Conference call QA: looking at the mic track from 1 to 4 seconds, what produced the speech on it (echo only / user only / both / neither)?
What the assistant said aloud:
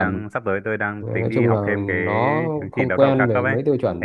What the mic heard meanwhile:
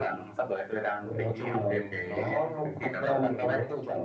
echo only